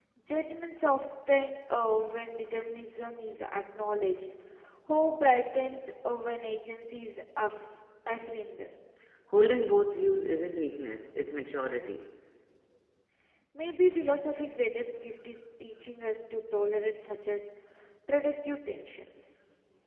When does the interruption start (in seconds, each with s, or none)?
none